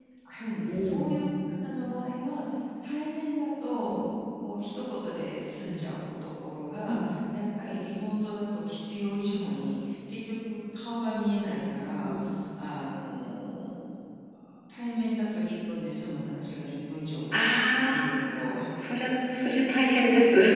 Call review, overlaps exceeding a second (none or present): none